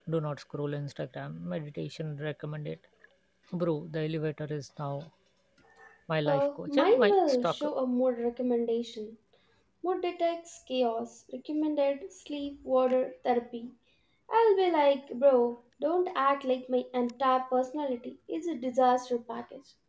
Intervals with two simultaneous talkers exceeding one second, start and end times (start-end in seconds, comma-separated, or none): 6.3-7.7